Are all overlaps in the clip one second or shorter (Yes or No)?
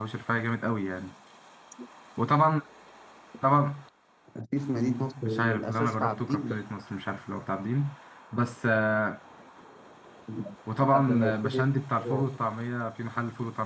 No